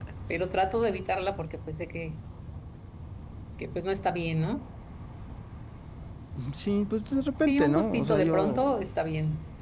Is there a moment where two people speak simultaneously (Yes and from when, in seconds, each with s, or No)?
Yes, from 7.4 s